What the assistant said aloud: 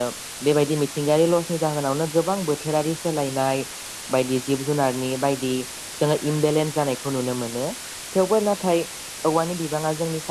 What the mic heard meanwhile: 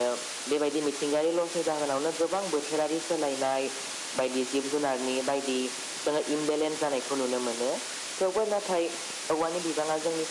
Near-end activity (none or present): none